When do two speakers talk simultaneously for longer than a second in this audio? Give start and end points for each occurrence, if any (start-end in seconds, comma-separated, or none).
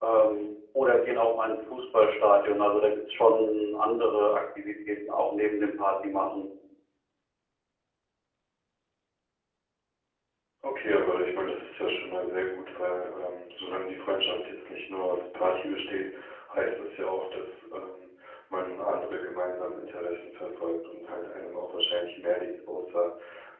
none